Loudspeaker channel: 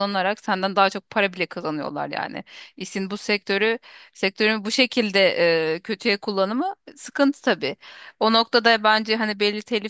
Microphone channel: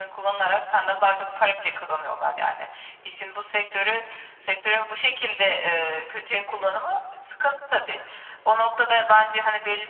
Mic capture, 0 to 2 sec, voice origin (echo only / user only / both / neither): echo only